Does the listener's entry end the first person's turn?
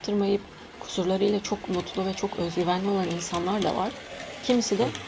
No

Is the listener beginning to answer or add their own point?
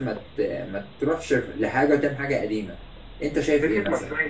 Yes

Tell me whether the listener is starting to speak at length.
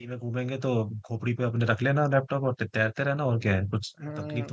Yes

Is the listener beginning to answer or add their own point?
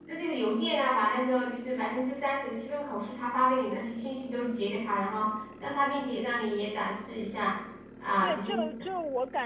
Yes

